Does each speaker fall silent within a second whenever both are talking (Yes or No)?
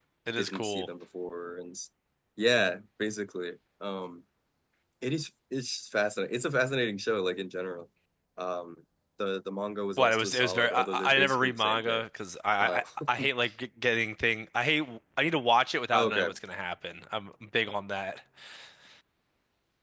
No